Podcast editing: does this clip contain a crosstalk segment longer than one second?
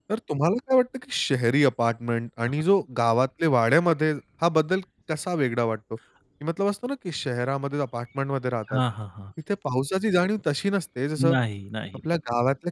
No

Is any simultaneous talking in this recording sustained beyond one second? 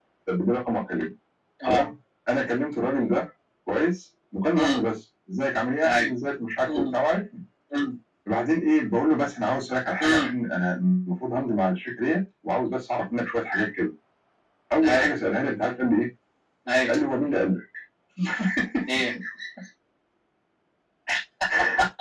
No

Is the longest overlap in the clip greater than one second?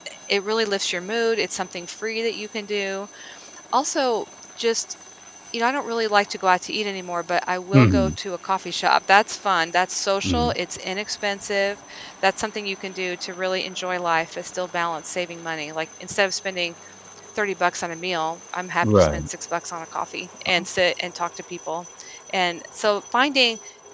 No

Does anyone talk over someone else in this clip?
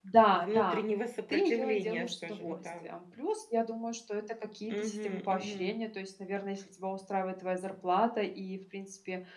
Yes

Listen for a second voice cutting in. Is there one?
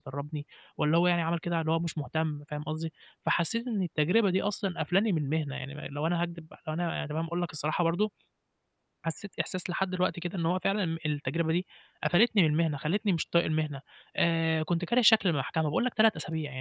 No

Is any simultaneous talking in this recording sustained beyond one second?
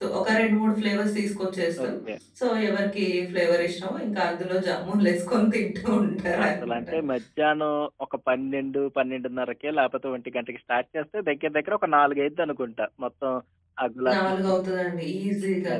No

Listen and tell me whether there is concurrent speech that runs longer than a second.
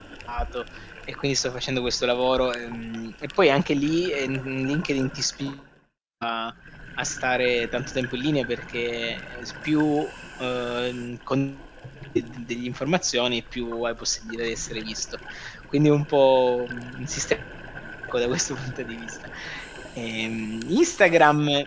No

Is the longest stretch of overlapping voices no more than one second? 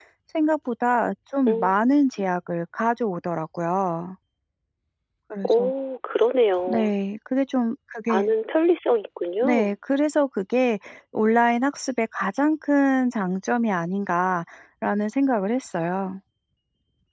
Yes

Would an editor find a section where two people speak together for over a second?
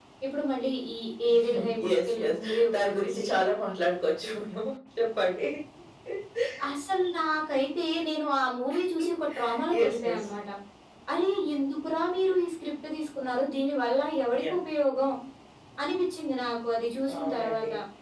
Yes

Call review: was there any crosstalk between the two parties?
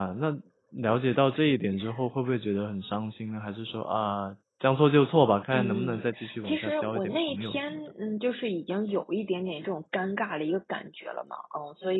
Yes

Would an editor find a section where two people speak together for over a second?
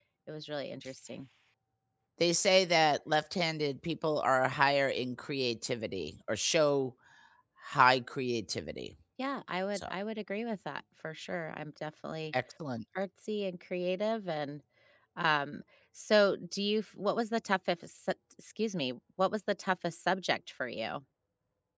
No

